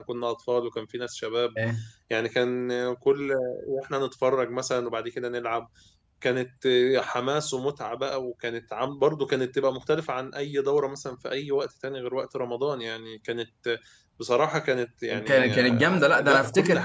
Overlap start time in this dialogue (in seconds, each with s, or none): 15.1 s